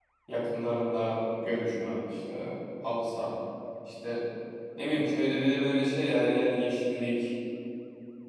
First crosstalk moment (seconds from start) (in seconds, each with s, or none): none